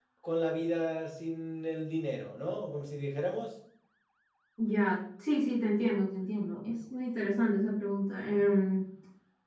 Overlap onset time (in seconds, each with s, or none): none